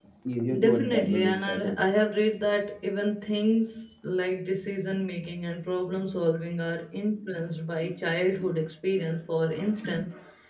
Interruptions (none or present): present